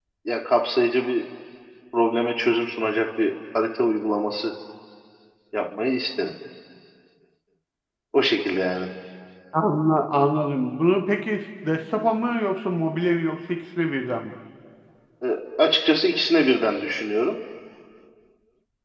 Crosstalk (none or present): none